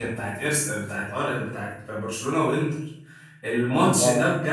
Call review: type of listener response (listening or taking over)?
listening